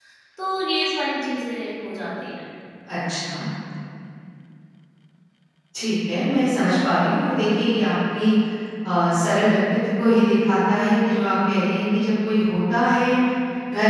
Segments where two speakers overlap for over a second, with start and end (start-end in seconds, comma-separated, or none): none